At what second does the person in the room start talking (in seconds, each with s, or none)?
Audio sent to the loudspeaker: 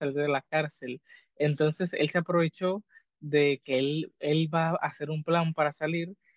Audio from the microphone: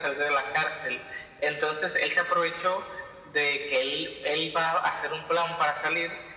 none